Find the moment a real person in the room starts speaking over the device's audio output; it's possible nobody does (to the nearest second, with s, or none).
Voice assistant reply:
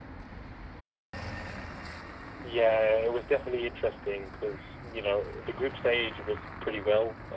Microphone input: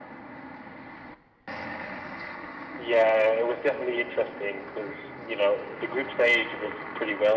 none